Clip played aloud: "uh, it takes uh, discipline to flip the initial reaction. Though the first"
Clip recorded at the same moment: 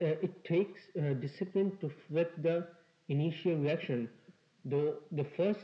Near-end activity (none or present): none